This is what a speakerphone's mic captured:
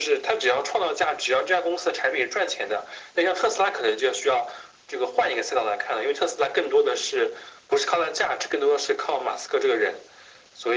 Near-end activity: none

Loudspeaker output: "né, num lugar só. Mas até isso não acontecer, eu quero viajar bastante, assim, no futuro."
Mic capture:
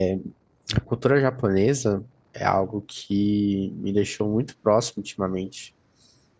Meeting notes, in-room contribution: present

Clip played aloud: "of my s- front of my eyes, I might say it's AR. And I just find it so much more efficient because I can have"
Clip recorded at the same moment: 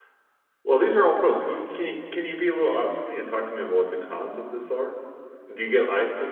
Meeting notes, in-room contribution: present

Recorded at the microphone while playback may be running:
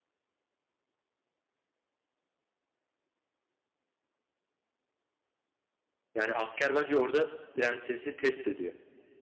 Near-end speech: present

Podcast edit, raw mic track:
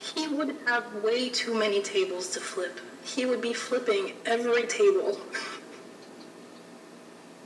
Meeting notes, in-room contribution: none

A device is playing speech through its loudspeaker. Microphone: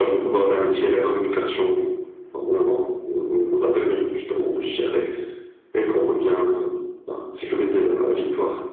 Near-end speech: none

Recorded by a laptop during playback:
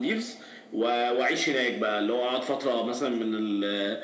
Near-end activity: none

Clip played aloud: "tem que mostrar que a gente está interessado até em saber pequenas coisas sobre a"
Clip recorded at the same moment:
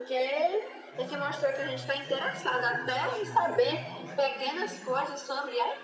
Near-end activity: present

